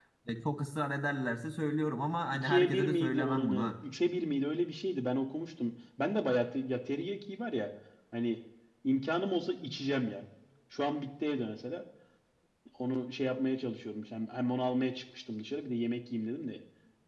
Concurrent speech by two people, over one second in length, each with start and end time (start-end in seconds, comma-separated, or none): 2.3-3.7